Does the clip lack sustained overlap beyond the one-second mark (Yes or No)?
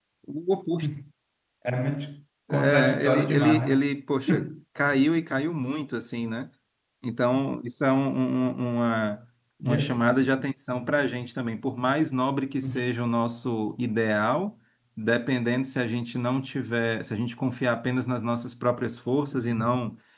No